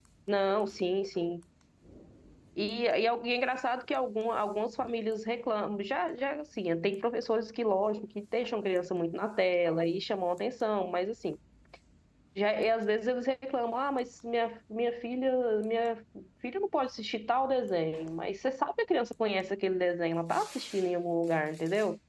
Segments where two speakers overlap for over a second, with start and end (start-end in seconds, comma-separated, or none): none